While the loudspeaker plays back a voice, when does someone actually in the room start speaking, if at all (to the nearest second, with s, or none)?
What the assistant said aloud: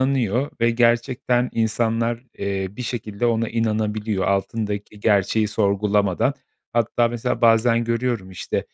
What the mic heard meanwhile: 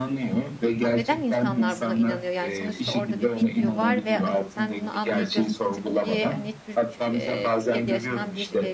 1 s